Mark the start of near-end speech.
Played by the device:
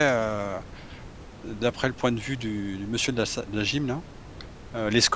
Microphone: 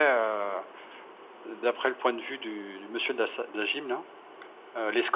none

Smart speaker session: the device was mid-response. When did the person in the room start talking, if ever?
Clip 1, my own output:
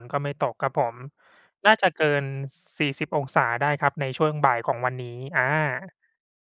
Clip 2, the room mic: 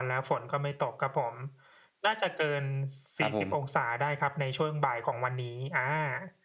3.2 s

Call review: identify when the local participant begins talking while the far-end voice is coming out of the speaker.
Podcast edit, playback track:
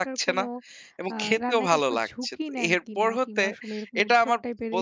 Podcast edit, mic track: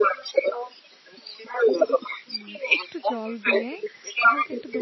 2.3 s

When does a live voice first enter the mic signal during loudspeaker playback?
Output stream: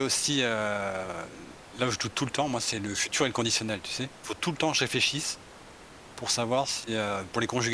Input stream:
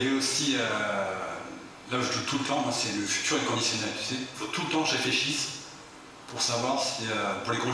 none

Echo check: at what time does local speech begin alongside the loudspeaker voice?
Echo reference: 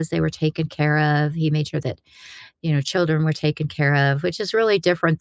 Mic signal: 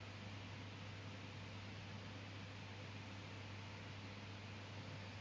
none

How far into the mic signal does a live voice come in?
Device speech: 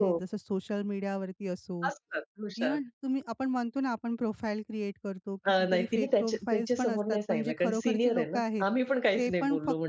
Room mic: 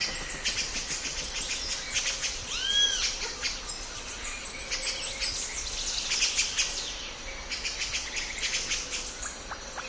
none

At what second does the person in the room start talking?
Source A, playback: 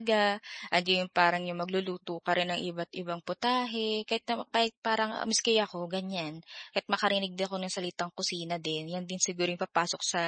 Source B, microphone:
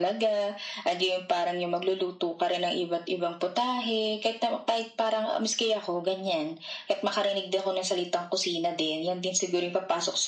none

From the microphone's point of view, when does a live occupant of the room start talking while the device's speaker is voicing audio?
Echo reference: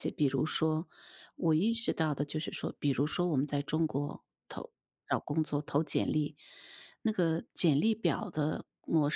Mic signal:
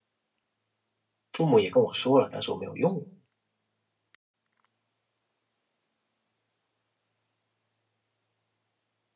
1.3 s

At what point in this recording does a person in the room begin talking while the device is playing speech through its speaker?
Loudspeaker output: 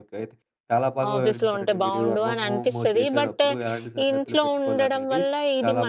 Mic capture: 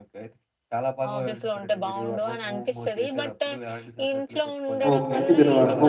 4.9 s

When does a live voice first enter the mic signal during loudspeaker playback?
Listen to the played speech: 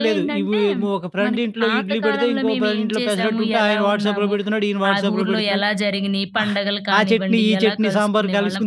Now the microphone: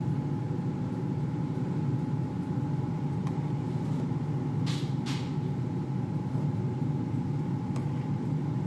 none

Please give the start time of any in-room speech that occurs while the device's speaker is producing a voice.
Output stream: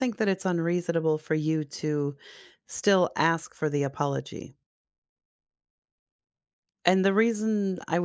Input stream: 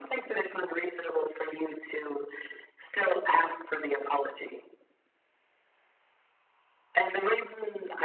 none

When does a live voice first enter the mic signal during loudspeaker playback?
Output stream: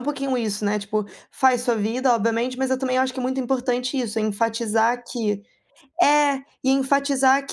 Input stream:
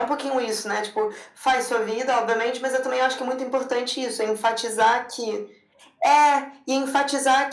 none

